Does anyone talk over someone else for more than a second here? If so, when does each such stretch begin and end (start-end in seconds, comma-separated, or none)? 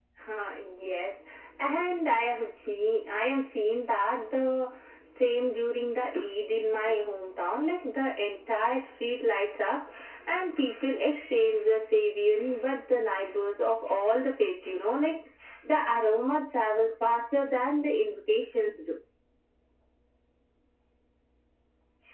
none